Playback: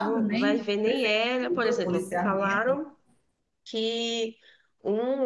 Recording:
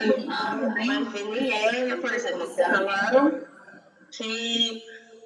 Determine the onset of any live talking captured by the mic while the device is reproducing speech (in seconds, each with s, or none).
none